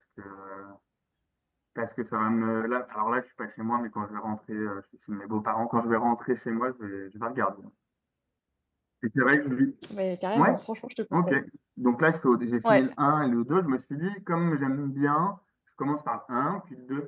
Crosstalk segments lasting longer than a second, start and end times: none

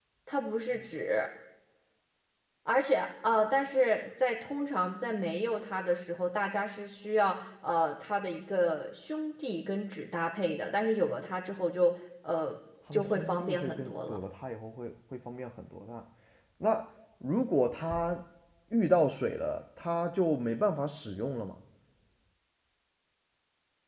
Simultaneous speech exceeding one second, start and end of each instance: 12.9-14.2

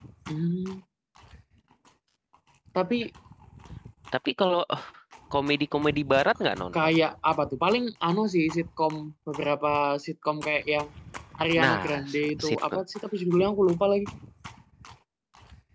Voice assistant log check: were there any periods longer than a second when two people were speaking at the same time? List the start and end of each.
11.6-12.8

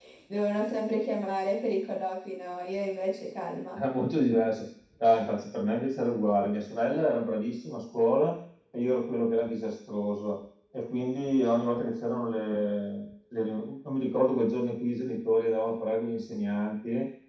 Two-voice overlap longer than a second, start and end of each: none

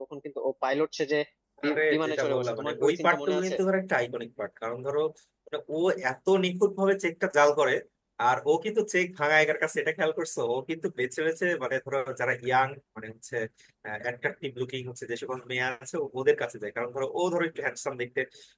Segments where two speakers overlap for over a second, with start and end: 1.6-3.5

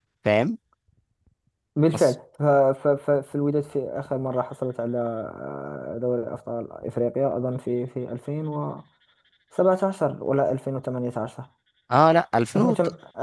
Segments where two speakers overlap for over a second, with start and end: none

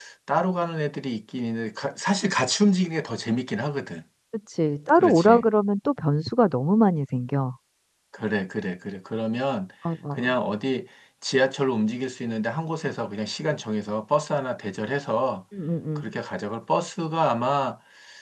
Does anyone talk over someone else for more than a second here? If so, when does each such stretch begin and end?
none

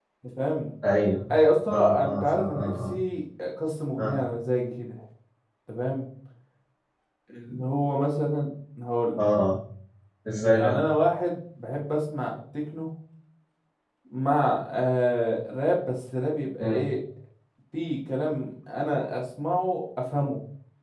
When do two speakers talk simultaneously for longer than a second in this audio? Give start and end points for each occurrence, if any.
1.7-3.0

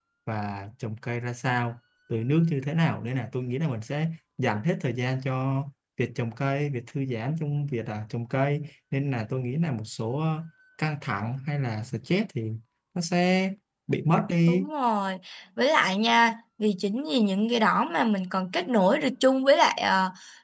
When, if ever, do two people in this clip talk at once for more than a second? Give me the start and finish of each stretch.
none

